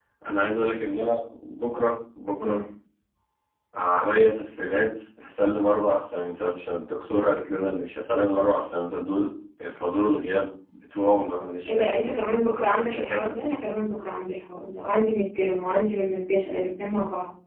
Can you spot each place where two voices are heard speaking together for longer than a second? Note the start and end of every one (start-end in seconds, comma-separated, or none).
none